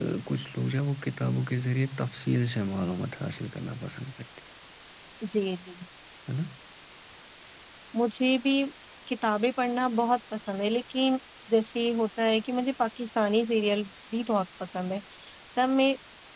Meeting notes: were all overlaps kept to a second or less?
Yes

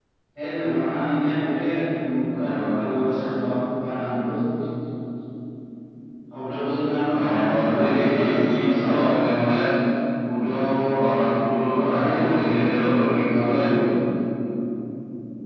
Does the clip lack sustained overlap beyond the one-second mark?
No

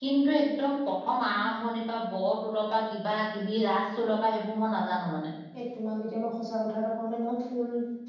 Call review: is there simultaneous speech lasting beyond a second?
No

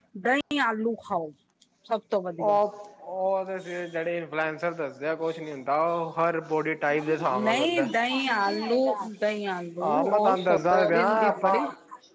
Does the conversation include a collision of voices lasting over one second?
Yes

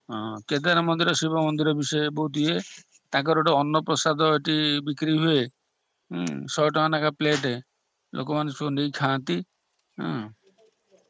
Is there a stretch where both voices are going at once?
No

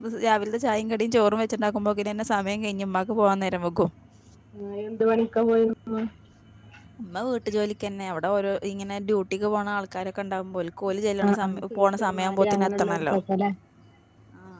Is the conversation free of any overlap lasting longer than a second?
No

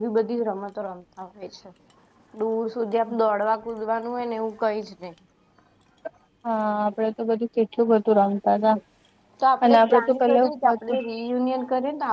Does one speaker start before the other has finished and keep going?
Yes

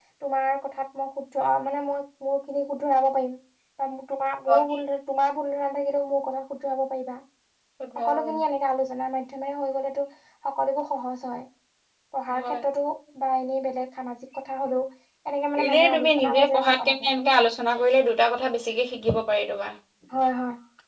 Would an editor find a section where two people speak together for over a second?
Yes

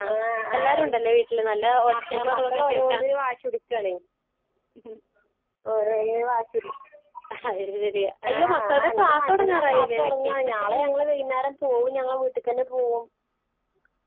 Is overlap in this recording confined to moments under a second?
No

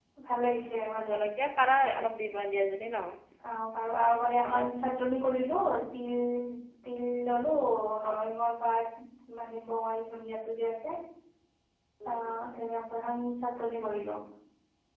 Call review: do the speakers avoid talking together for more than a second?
Yes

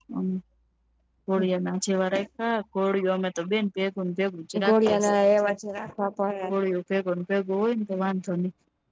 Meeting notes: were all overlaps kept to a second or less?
Yes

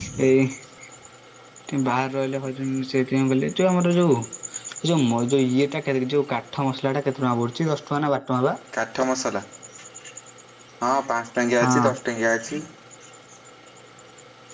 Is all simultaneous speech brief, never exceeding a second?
Yes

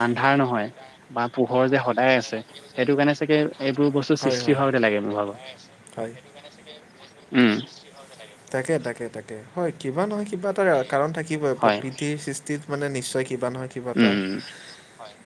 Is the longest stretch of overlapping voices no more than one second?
Yes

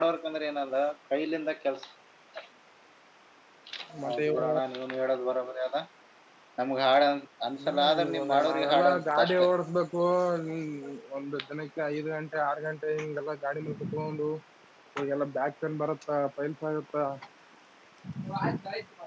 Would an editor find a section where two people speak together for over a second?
Yes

